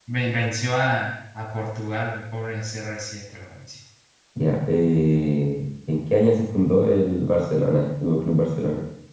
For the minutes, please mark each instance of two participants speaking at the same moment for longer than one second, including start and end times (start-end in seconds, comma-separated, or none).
none